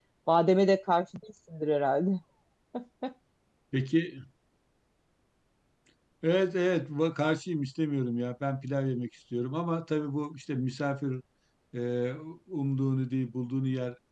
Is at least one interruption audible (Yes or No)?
No